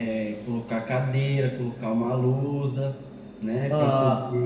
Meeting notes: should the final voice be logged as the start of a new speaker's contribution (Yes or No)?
No